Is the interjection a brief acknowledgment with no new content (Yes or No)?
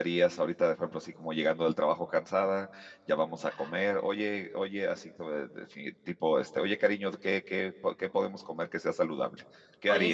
No